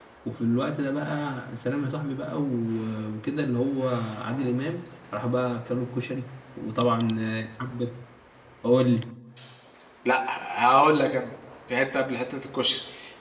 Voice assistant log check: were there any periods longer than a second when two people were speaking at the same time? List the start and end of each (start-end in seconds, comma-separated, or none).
none